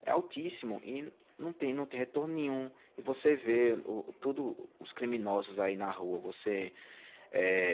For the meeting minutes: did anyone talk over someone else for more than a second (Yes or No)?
No